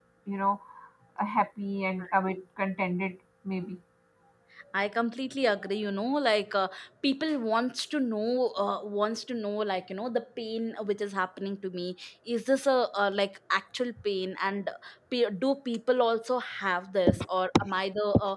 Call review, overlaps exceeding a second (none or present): none